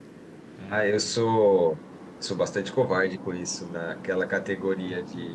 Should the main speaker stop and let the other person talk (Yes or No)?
No